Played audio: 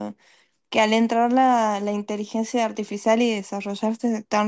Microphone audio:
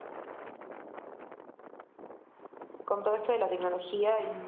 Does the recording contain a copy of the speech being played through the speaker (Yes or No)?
No